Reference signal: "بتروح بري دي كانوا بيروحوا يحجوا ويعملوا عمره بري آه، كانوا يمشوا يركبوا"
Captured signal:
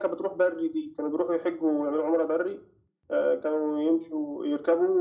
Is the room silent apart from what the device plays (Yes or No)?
Yes